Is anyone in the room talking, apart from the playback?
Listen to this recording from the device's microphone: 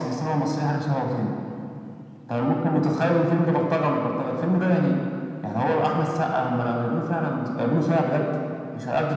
No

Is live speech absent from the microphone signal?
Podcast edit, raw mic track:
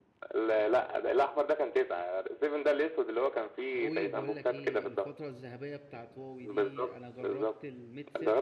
No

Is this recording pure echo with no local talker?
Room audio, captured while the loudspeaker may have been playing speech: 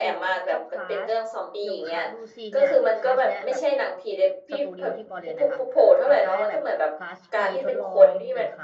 No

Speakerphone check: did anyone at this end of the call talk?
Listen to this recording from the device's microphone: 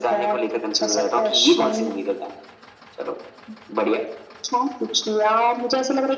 No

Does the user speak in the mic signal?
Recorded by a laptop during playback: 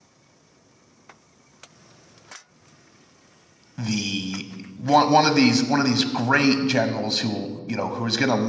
Yes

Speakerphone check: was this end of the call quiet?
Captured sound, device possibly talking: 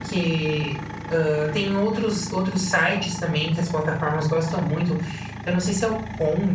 No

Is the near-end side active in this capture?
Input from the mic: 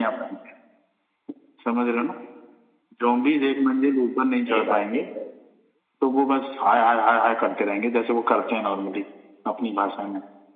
Yes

